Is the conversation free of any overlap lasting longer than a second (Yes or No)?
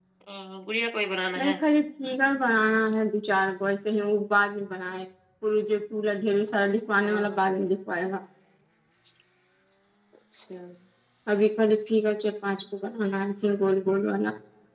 Yes